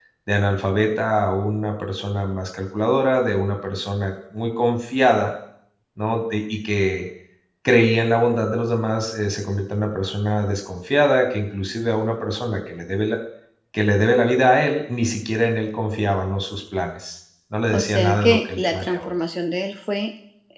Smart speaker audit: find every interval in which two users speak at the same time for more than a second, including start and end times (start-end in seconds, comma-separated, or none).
17.7-19.1